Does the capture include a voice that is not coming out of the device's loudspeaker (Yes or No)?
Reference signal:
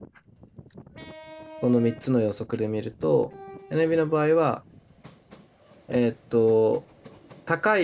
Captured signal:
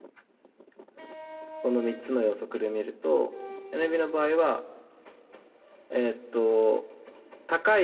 No